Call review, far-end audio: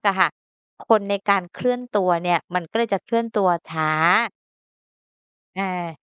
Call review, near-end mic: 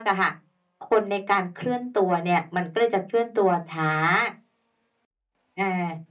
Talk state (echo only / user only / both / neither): echo only